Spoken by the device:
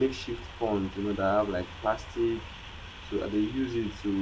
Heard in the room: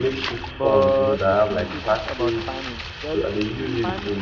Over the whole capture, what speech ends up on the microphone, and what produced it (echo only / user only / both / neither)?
both